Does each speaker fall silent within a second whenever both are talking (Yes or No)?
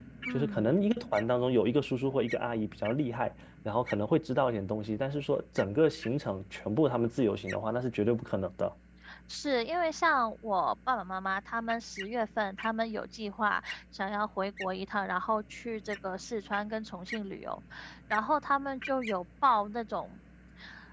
Yes